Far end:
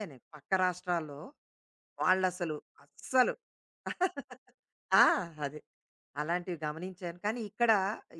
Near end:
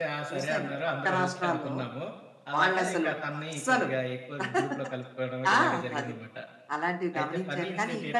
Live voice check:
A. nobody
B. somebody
B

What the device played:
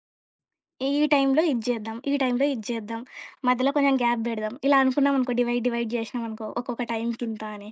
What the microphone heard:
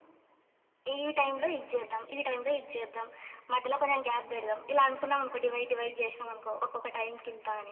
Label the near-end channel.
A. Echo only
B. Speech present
A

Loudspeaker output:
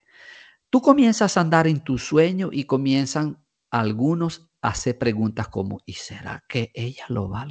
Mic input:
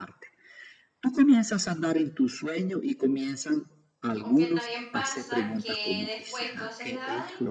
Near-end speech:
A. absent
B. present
B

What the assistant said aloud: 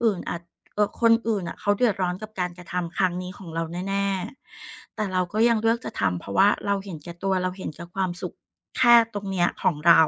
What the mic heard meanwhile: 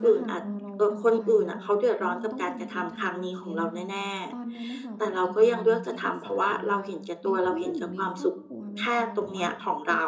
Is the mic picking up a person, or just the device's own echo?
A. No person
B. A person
B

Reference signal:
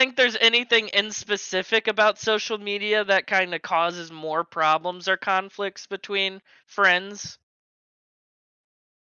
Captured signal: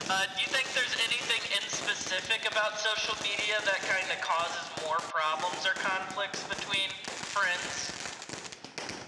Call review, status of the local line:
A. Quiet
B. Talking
A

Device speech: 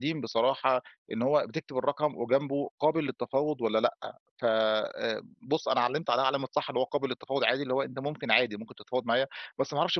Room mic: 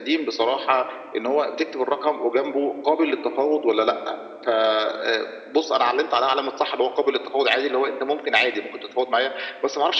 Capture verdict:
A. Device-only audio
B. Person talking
A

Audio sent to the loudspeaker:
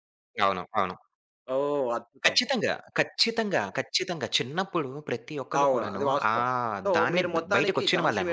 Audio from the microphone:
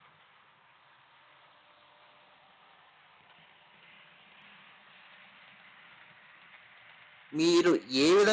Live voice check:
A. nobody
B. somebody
B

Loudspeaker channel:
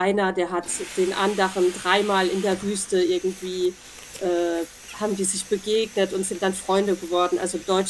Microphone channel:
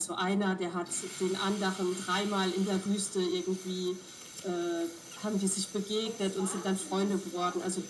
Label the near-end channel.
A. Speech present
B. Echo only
A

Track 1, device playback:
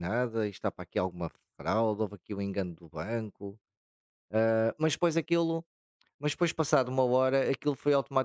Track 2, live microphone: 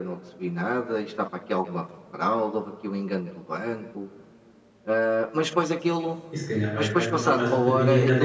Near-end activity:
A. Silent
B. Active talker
B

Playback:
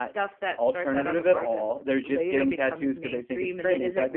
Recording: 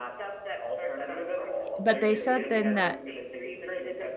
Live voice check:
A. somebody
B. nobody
A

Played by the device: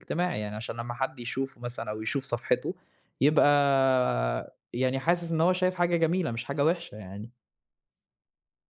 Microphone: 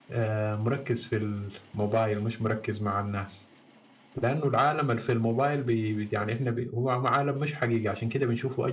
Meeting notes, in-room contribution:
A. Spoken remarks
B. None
A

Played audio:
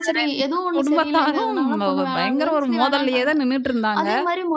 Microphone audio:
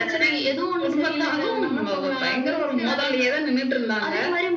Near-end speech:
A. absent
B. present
A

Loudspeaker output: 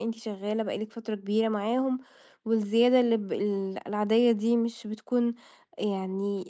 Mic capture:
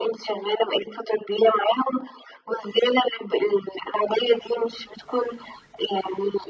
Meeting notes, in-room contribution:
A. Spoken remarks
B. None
B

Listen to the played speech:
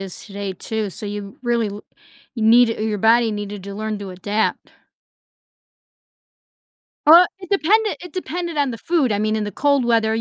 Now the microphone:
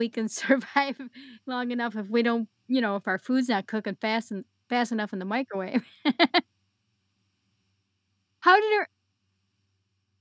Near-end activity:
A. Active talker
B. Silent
A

